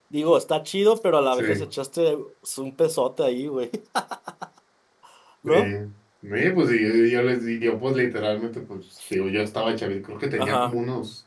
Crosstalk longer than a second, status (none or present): none